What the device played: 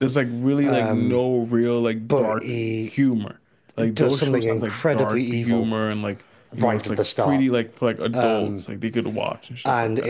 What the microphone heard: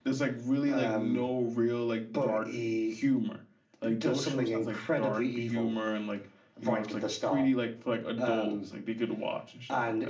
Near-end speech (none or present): none